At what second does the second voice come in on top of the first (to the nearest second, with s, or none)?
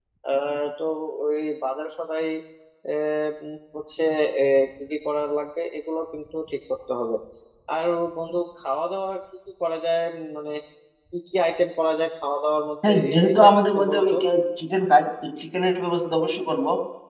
13 s